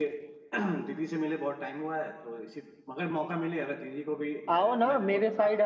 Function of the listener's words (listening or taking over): taking over